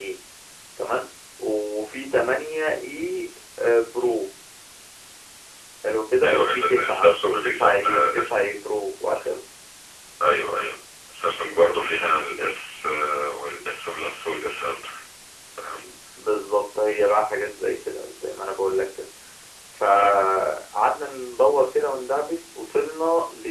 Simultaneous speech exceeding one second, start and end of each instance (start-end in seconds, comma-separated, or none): 6.2-8.5